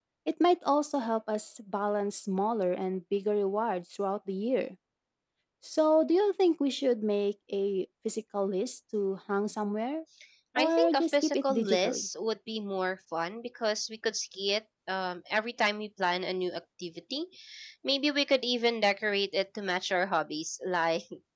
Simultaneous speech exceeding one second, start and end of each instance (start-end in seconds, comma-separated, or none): 10.6-12.1